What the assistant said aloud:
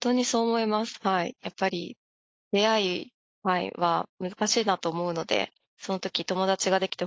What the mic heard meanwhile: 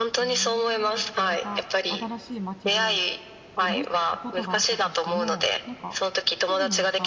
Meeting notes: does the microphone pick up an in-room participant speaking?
Yes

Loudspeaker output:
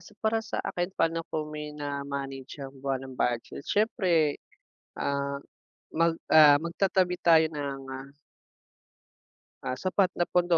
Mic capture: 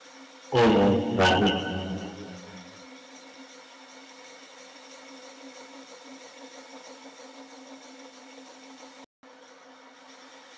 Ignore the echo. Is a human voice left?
Yes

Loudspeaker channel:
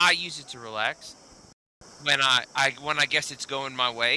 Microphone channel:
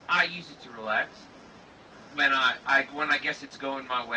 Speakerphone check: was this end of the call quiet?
Yes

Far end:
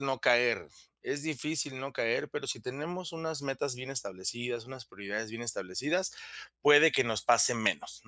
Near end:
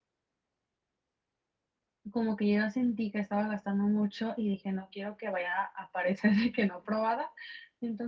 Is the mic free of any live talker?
No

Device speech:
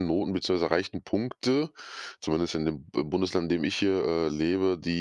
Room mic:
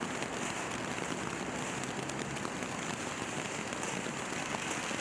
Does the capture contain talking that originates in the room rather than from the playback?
No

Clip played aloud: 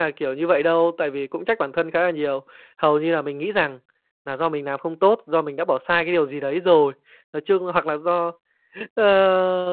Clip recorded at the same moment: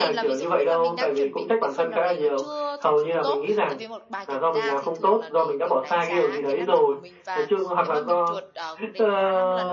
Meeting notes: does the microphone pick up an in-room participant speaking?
Yes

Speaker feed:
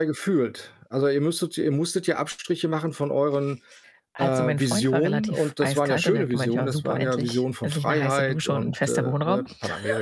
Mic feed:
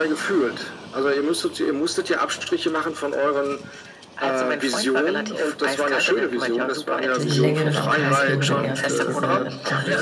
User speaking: Yes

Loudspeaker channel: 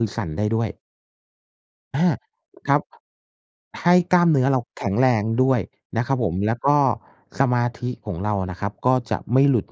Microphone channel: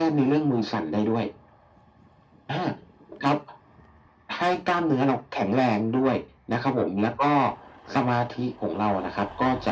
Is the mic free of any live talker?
Yes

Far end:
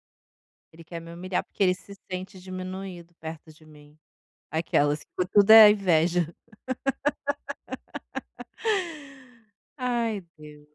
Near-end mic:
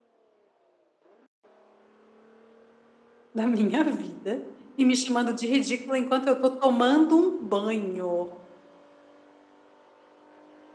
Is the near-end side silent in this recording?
No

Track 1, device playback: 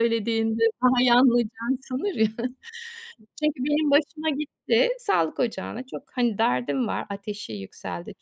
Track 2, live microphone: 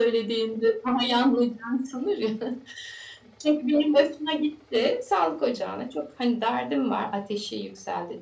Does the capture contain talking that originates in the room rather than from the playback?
No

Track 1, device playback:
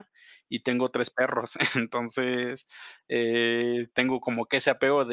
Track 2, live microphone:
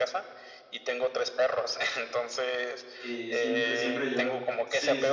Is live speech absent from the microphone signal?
No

